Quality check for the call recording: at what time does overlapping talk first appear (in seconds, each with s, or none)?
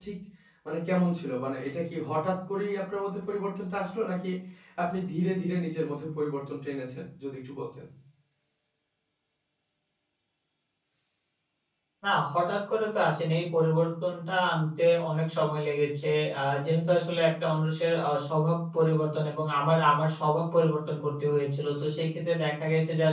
none